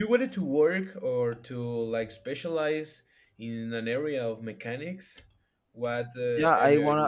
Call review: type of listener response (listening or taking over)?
taking over